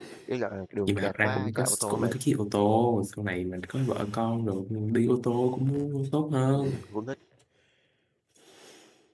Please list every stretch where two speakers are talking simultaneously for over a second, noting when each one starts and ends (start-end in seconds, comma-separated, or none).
0.9-2.1